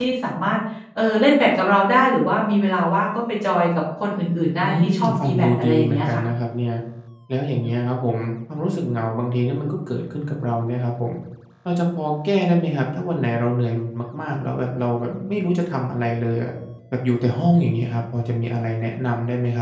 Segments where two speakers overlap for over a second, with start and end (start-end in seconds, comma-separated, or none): 4.6-6.2